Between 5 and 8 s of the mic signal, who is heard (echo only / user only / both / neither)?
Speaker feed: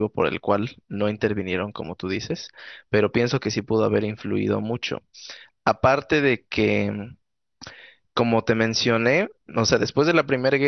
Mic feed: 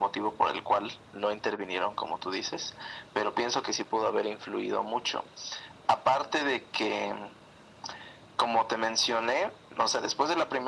echo only